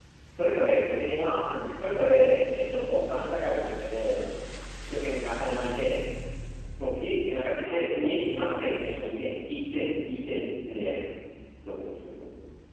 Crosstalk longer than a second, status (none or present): present